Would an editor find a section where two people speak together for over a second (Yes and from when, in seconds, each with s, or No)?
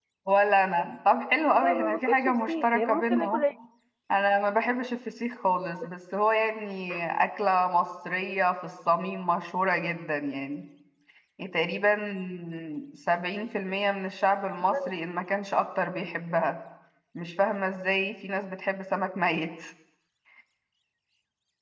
Yes, from 1.6 s